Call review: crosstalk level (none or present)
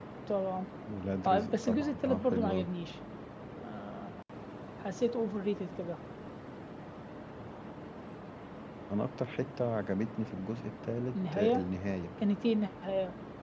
present